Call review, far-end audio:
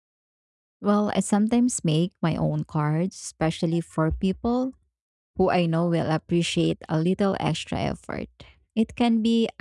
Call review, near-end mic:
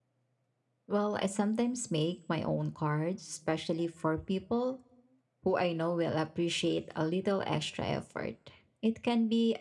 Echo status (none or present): present